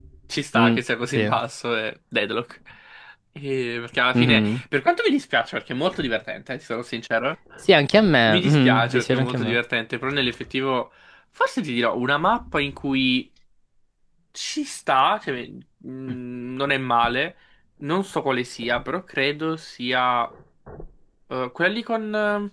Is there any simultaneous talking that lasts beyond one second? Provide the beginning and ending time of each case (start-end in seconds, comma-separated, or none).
8.3-9.6